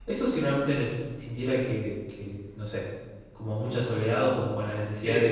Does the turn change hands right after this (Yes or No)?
No